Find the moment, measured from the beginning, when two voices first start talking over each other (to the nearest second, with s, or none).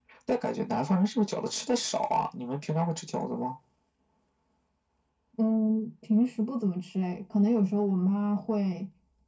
none